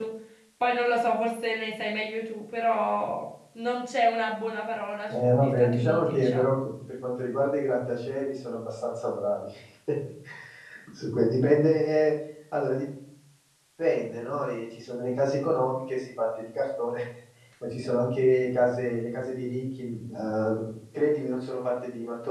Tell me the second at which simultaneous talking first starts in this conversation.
5.1 s

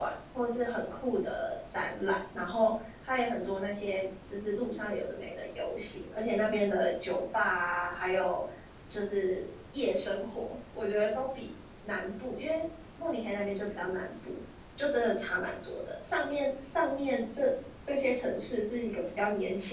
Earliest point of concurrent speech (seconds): none

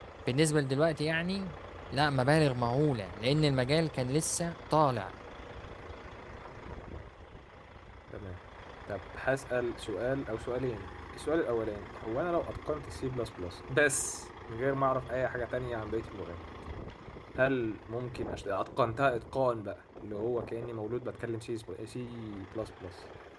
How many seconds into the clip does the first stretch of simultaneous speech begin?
none

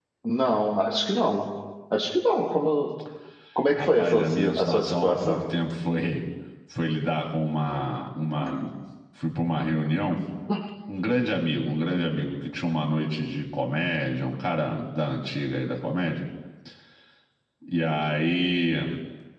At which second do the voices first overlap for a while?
3.8 s

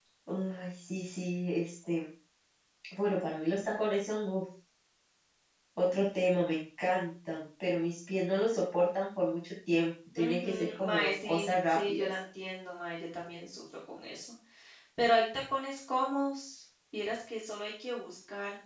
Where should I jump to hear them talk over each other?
10.2 s

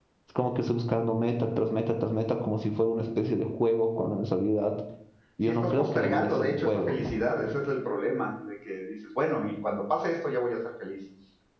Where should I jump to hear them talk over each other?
5.5 s

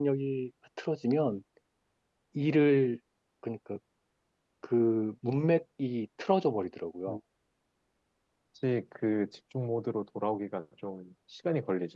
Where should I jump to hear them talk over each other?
none

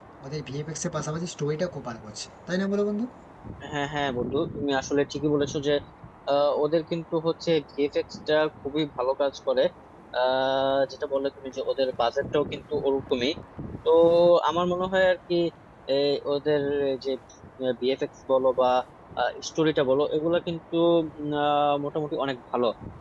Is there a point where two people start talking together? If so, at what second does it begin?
none

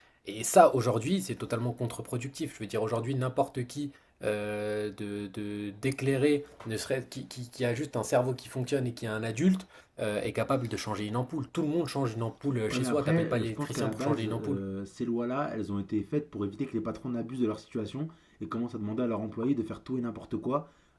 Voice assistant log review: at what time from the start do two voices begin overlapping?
12.7 s

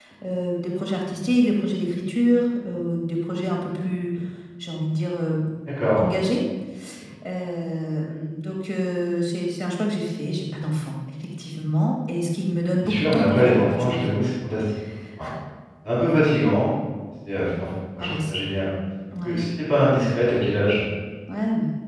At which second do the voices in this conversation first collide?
12.8 s

